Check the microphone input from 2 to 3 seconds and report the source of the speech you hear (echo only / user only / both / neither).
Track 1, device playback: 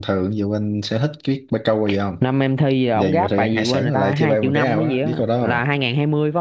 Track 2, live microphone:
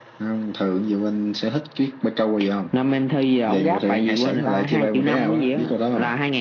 echo only